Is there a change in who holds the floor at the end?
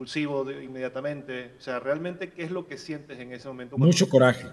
Yes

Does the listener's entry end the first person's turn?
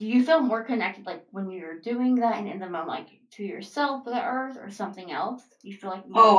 Yes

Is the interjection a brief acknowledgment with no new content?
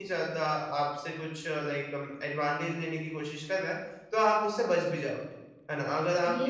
Yes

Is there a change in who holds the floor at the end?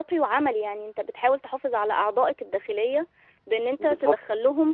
No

